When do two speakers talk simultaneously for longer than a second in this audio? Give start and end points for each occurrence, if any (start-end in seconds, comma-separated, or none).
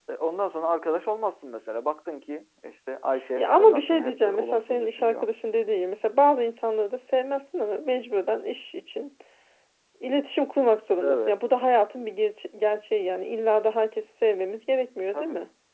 3.4-5.3